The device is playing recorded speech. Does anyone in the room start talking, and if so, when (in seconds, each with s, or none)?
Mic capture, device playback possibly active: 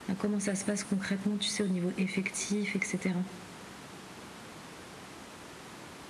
none